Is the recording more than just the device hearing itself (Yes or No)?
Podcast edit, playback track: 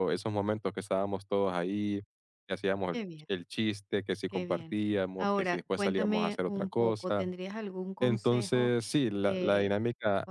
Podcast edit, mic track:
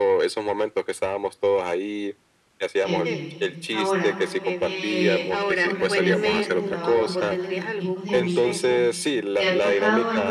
Yes